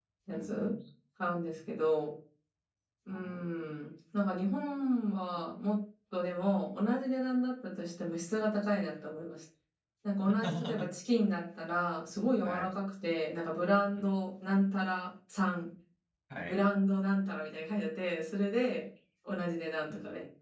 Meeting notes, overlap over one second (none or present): none